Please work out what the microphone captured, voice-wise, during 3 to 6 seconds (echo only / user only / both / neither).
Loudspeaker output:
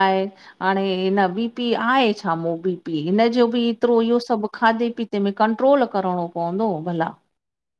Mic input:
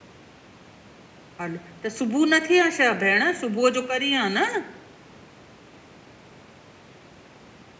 user only